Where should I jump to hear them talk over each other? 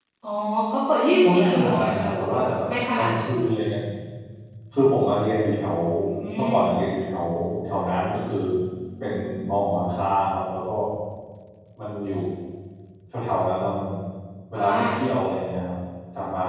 1.2 s

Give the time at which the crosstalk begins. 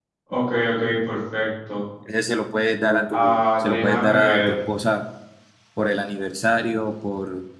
3.1 s

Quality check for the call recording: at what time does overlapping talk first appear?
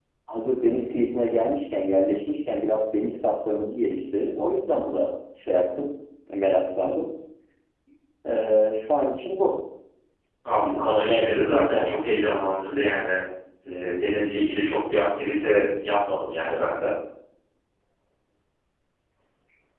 10.8 s

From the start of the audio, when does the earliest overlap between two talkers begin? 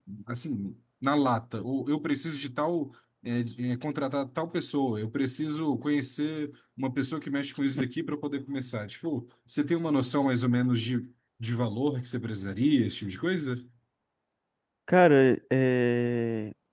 none

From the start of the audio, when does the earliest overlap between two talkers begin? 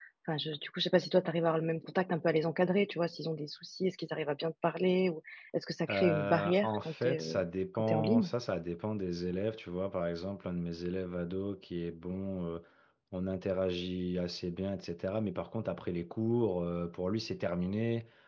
5.9 s

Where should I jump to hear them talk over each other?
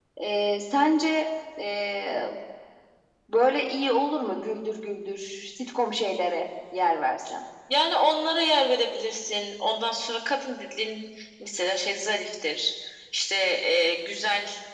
none

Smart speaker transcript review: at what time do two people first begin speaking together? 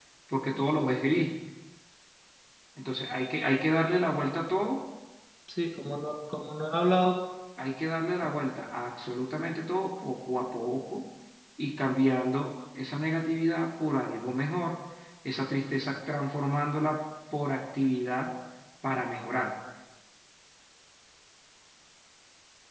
none

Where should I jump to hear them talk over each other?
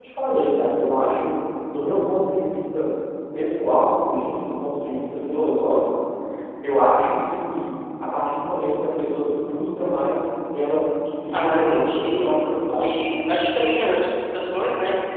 11.3 s

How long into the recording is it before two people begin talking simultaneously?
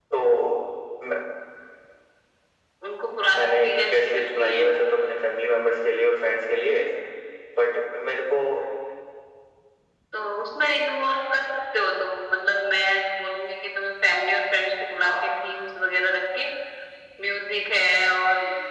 3.3 s

